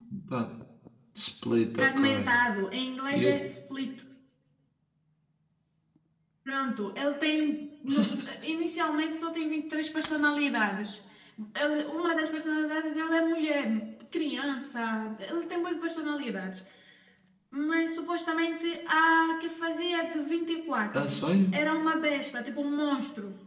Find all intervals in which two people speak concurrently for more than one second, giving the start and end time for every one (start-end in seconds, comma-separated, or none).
none